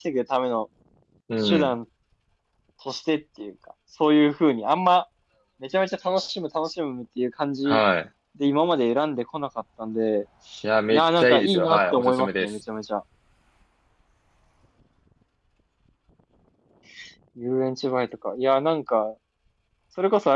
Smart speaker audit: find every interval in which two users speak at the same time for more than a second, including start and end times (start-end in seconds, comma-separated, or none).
10.9-12.5